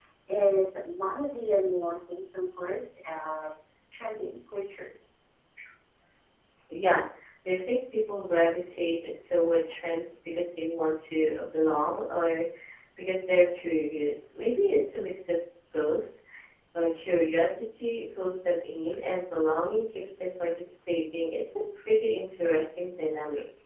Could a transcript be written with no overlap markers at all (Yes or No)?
Yes